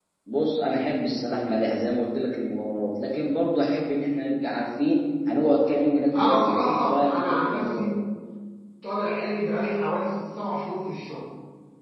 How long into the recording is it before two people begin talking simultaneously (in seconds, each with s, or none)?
6.1 s